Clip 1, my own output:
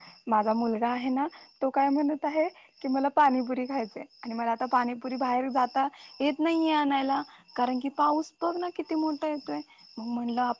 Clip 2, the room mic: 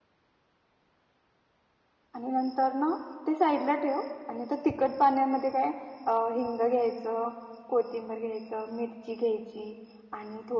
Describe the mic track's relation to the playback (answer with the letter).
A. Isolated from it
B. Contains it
A